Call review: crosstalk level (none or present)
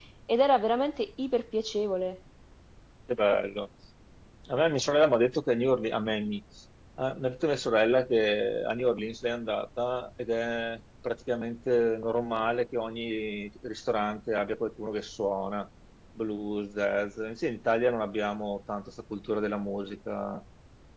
none